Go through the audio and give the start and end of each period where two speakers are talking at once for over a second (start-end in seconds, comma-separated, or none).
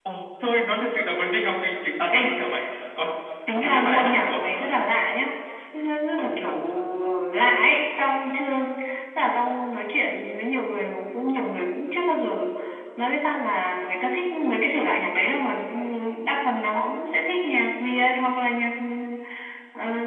3.5-4.7